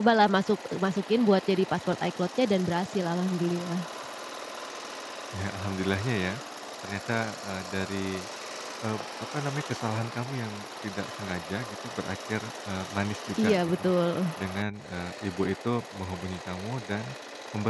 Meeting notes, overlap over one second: none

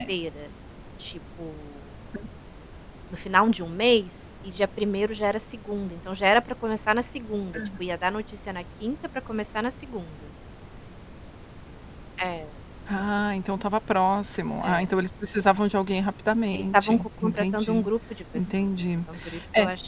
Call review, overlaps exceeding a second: present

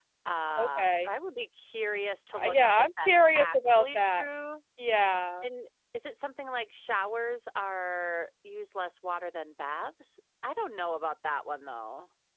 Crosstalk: present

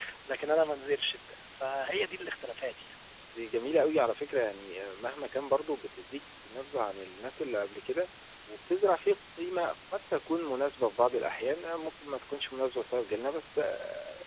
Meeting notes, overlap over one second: none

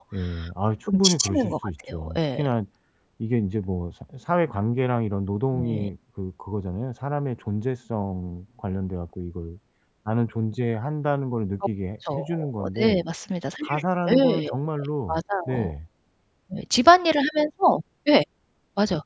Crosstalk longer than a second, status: present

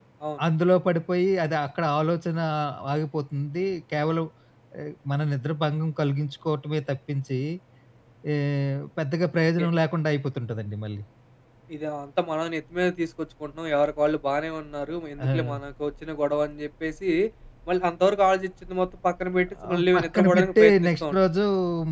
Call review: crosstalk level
present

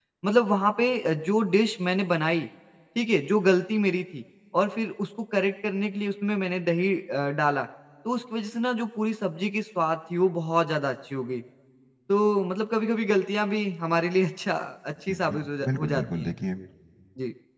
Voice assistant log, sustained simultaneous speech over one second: present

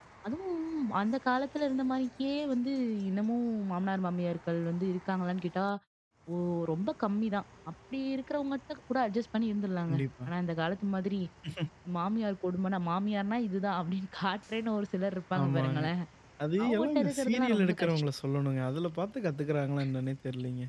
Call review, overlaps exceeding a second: present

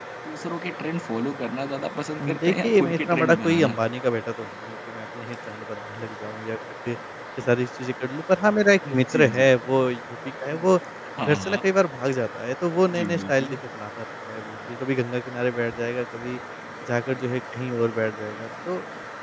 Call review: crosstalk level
present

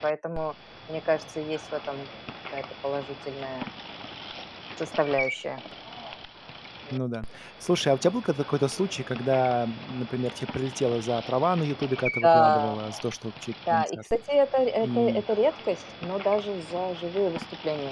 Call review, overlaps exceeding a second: none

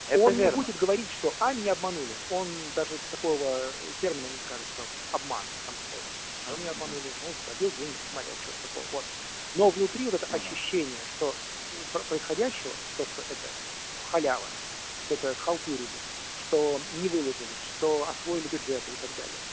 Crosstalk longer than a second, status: none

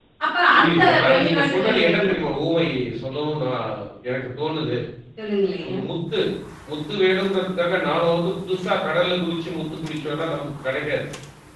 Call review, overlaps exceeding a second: present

